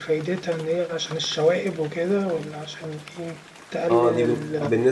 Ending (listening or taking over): taking over